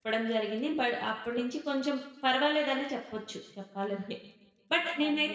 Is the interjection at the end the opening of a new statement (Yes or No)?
No